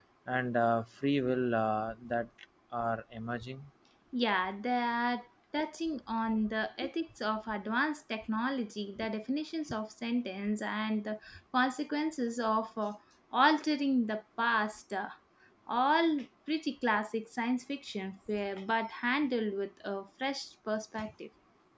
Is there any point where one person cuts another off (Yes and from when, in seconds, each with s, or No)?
No